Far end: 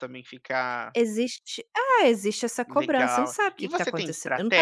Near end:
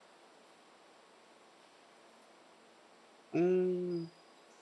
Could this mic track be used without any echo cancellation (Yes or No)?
Yes